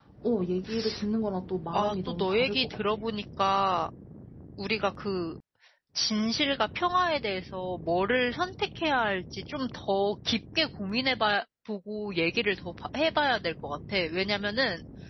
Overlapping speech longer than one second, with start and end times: 1.7-3.0

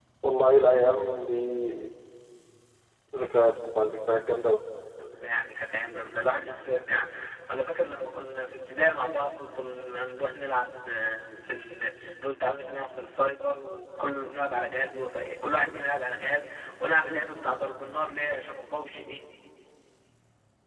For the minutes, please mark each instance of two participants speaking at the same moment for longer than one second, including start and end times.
none

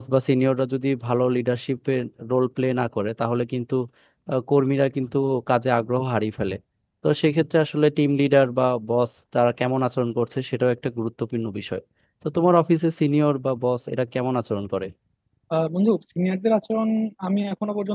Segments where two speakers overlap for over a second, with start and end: none

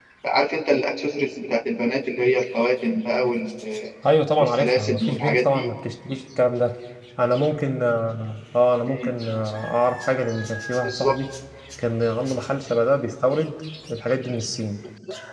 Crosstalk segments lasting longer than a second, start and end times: 4.4-5.7

